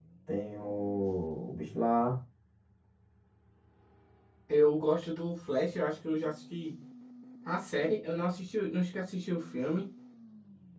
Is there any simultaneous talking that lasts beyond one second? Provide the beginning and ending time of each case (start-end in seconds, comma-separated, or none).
none